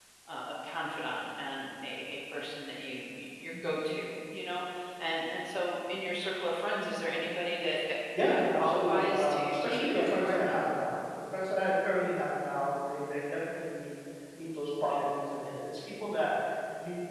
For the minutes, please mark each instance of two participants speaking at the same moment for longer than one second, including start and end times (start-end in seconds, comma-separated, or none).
8.2-10.6